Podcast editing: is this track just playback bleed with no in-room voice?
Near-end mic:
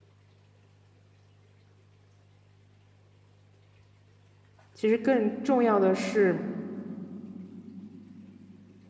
No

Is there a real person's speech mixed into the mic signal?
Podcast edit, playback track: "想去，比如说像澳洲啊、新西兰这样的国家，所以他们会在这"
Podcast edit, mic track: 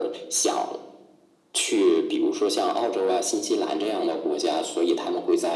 No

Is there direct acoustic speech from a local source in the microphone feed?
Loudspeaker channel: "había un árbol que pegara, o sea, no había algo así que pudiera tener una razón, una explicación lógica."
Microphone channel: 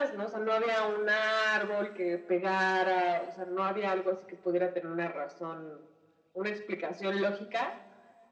No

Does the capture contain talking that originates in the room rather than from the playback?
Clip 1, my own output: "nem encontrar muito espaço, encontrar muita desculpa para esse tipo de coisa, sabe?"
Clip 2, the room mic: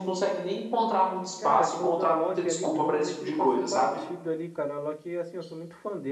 Yes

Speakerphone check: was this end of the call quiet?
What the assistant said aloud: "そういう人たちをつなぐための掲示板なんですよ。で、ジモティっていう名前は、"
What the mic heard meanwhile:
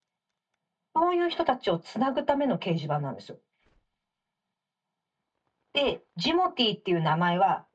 Yes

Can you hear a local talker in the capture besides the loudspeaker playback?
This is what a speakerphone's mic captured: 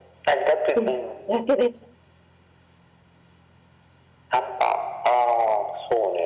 Yes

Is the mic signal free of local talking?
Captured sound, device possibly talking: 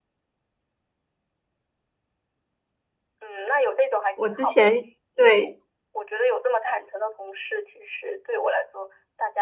No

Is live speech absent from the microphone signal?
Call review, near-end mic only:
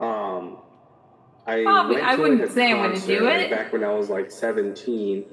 No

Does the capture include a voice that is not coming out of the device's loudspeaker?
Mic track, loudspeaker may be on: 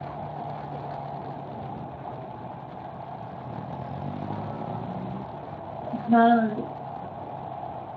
Yes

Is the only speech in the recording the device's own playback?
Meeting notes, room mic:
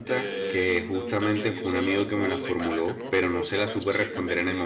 No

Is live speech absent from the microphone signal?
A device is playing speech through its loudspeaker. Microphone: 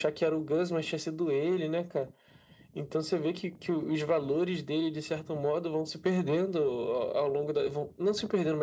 Yes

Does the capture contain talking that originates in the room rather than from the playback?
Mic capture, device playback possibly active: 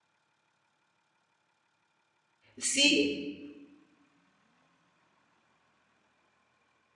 Yes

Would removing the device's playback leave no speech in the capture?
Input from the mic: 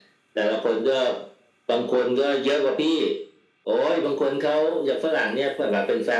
Yes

